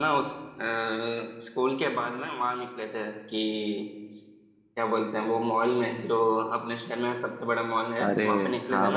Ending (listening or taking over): taking over